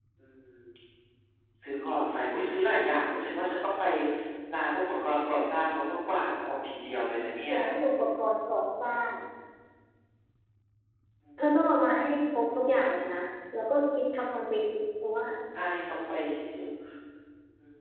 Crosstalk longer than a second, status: none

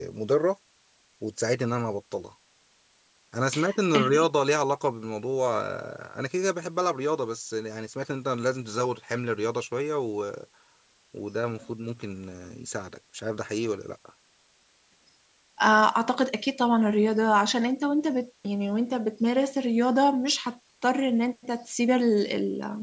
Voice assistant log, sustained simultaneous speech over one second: none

